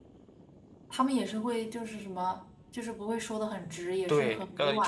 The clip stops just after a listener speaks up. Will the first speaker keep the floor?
No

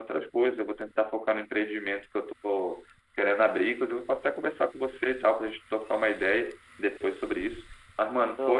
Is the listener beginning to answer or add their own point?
No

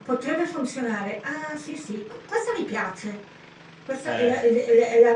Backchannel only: Yes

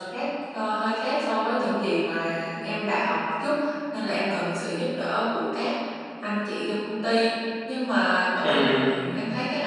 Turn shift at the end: No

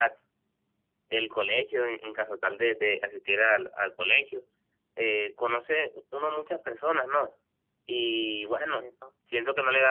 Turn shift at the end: No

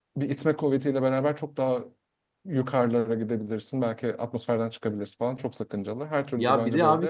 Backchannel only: No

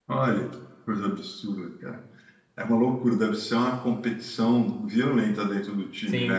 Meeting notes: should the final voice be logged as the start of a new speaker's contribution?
Yes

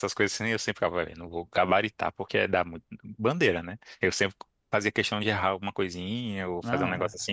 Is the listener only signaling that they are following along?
Yes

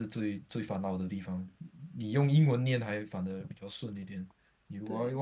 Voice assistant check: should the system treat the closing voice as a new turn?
No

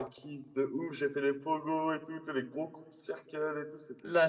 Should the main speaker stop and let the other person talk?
Yes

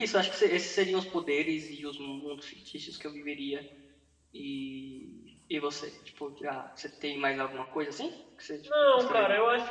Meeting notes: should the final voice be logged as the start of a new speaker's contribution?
Yes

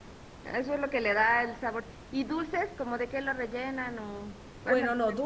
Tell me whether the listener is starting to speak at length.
Yes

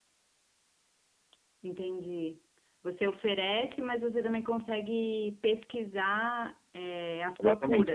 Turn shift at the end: Yes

